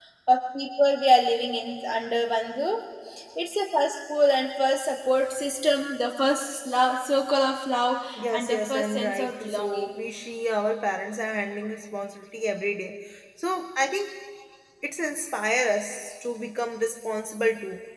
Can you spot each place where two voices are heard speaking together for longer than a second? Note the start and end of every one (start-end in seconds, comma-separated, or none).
8.2-9.9